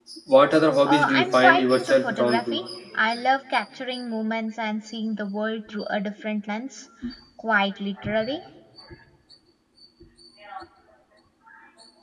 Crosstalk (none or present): present